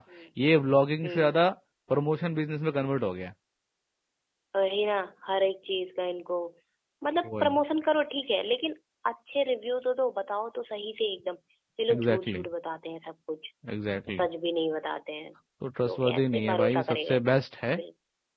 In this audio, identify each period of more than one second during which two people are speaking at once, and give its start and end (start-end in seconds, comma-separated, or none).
15.9-17.2